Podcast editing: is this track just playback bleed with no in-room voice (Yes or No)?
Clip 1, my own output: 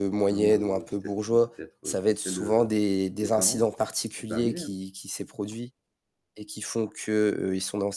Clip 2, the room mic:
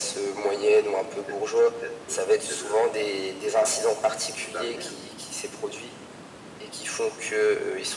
Yes